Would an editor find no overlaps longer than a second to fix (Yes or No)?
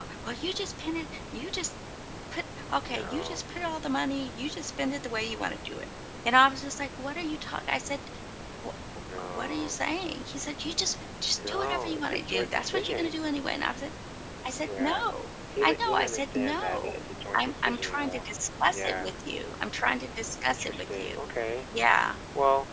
No